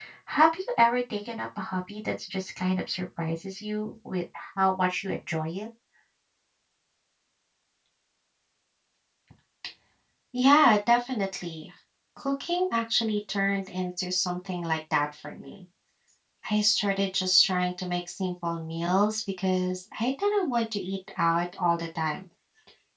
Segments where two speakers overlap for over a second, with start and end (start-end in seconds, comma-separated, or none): none